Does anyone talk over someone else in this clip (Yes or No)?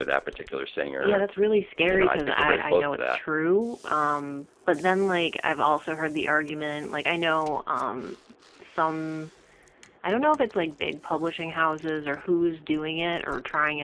Yes